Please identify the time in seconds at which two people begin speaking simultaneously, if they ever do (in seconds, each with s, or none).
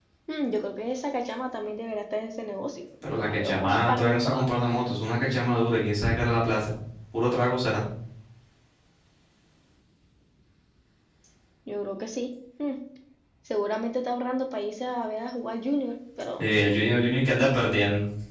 3.1 s